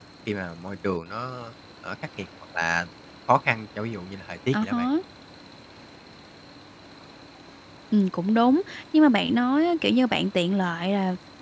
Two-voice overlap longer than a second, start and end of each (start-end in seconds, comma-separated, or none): none